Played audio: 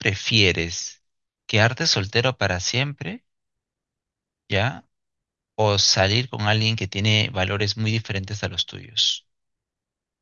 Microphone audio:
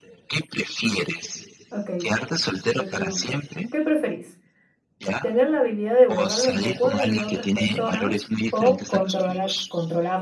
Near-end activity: present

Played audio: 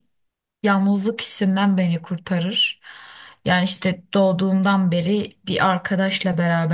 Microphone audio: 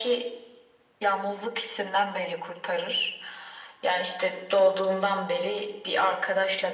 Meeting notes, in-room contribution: none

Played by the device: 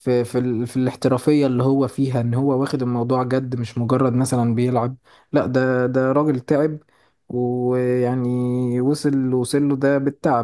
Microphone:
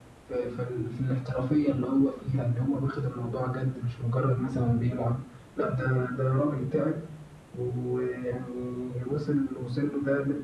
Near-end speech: none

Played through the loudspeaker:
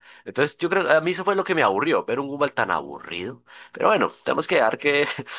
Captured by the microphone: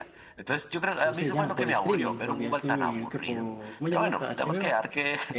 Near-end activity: present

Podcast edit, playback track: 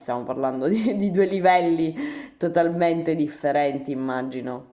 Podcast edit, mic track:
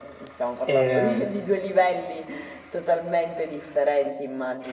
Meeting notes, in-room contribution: present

